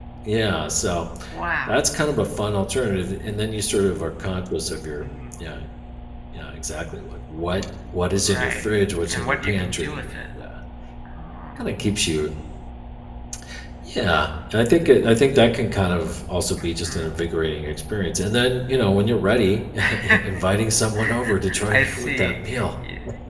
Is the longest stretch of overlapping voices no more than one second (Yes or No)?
No